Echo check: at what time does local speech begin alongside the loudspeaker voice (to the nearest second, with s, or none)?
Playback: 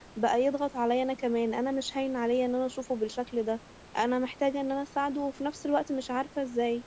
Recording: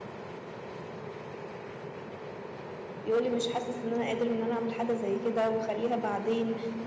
3 s